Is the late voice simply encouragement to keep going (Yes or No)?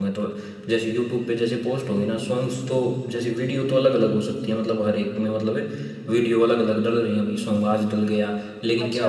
Yes